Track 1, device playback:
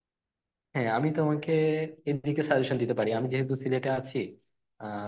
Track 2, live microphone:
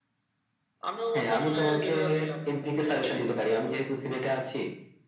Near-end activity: present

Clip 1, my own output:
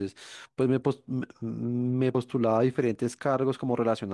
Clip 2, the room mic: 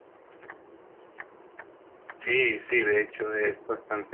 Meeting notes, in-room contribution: present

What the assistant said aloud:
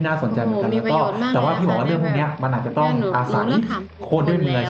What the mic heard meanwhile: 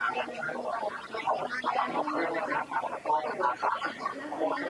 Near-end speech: present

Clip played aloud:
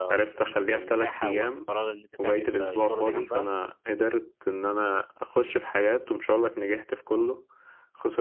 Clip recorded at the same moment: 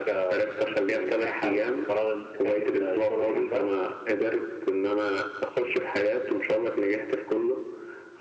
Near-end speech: none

